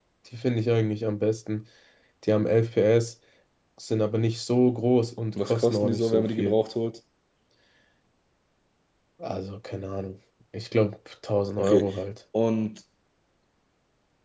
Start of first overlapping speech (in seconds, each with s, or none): 5.4 s